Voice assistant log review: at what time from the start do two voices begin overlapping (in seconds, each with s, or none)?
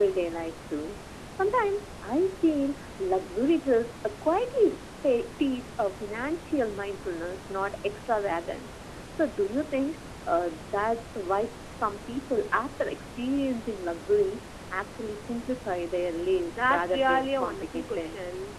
16.5 s